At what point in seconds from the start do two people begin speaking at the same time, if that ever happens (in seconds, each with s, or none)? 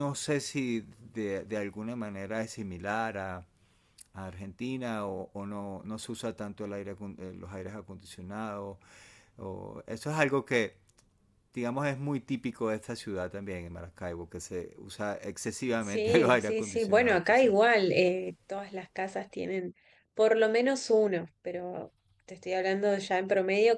15.8 s